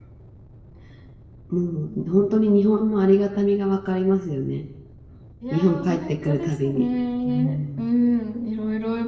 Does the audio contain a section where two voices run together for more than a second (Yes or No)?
Yes